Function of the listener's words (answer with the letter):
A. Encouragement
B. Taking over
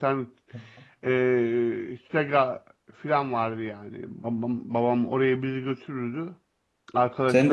B